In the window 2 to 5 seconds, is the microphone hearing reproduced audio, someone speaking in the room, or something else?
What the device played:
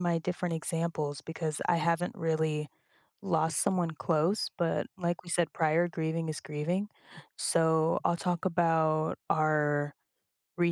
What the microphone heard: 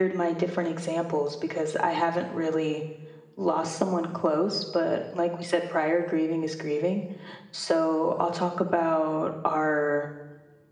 echo only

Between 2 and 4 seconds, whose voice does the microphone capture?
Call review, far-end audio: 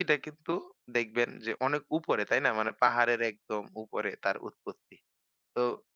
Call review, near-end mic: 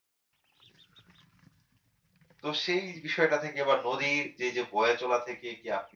user only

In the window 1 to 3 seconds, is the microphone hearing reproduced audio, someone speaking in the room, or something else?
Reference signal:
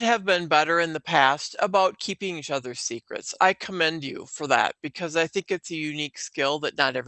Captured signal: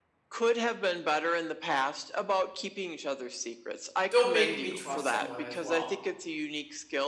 echo only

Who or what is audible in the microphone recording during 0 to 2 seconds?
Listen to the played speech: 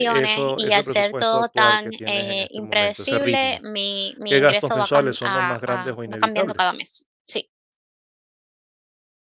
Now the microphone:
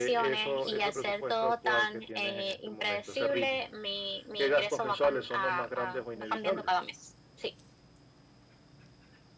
echo only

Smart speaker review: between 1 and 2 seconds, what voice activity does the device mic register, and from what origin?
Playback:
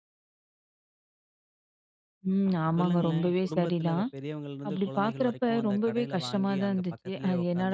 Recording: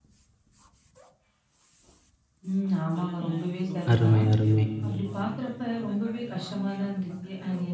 neither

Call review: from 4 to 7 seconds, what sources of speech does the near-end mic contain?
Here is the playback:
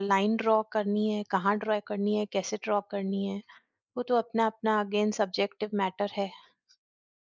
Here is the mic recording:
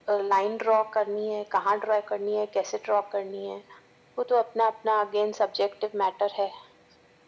echo only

